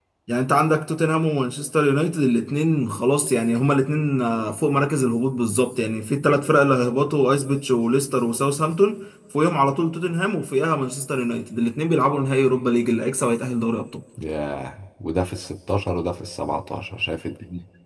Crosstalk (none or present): none